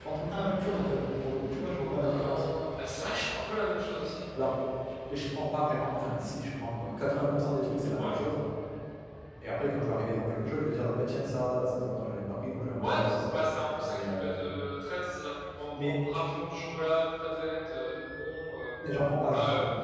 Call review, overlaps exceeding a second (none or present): none